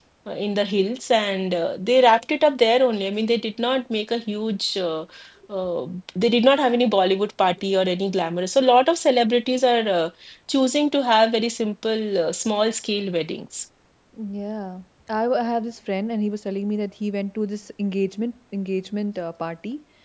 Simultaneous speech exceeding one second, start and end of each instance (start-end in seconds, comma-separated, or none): none